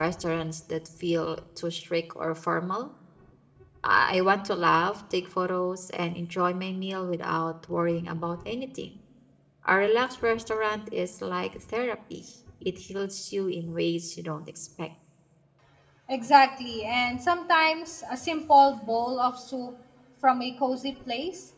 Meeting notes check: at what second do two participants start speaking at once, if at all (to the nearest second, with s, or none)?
none